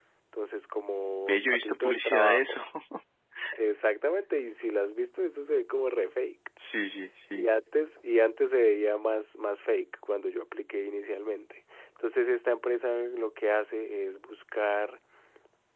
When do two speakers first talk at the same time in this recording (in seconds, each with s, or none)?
1.3 s